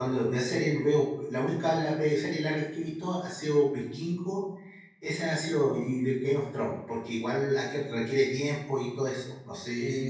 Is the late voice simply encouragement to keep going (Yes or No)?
No